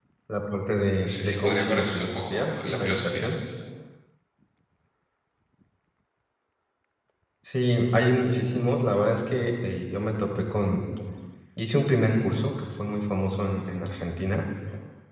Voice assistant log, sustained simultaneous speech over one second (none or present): present